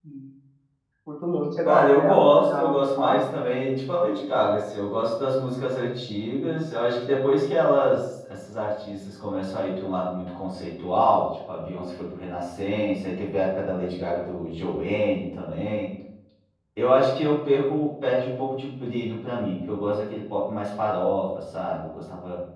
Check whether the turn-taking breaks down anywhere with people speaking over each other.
Yes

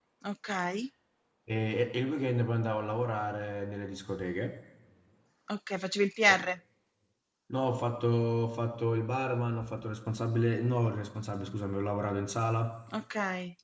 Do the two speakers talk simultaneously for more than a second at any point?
No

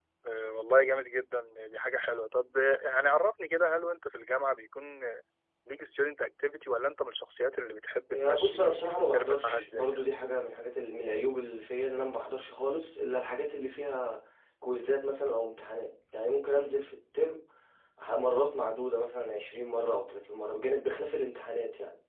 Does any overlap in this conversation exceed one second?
Yes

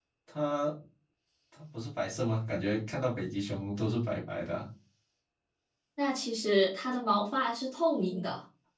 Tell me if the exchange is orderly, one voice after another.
Yes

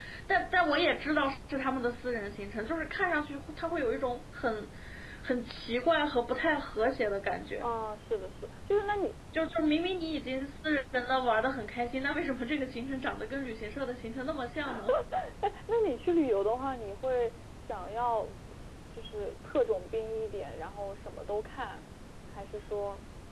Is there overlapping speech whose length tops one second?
No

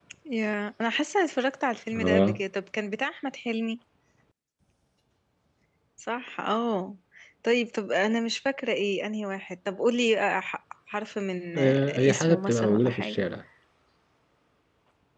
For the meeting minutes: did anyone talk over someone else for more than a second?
Yes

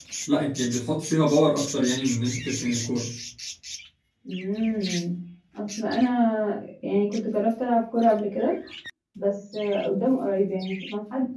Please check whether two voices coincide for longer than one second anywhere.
No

